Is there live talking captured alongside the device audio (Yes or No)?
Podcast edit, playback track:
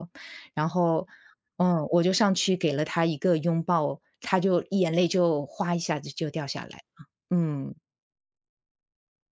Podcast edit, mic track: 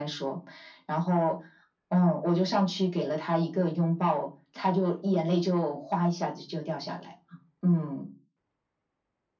No